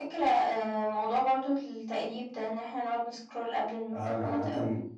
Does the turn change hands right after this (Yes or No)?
Yes